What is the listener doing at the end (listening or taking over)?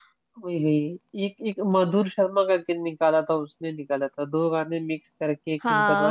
taking over